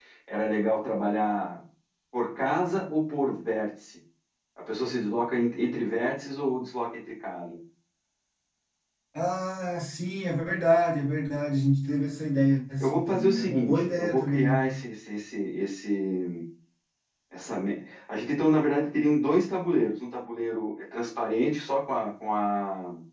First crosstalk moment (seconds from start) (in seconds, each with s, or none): 12.8 s